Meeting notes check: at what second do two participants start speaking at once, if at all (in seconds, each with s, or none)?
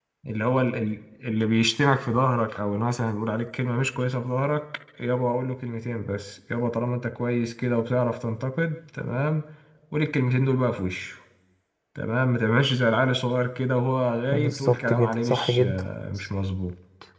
14.3 s